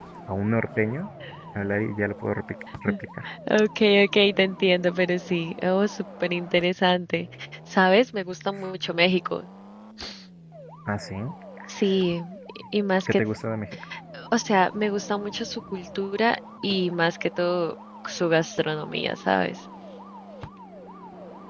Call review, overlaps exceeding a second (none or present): none